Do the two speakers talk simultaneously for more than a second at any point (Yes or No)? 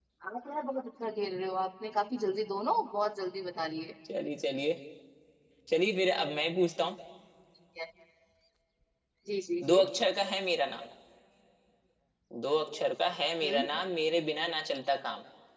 No